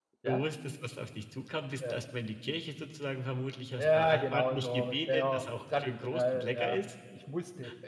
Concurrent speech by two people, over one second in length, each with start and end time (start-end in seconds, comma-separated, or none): 3.8-6.8